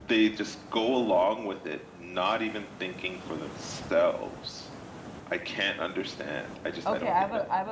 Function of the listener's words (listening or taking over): taking over